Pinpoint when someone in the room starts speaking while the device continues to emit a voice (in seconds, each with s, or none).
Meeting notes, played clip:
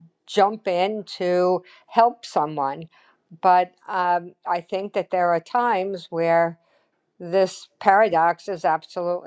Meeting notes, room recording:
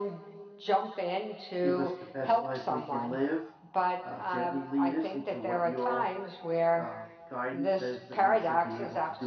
1.6 s